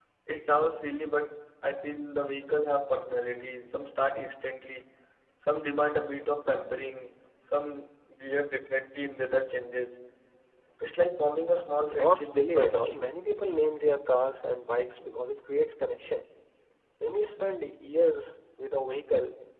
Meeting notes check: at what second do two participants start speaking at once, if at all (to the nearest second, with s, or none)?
12 s